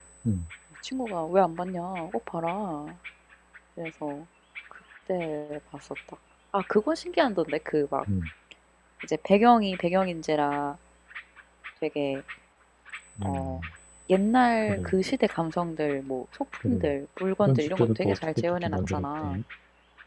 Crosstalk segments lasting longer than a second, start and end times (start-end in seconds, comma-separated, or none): 17.4-19.4